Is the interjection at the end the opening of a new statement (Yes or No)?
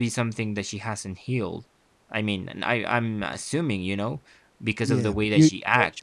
Yes